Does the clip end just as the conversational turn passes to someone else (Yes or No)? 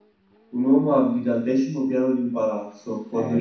Yes